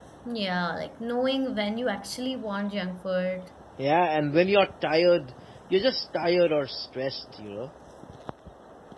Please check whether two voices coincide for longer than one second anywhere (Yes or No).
No